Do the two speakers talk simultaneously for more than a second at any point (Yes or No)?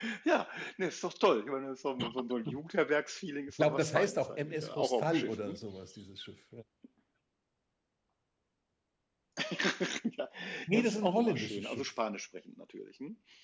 Yes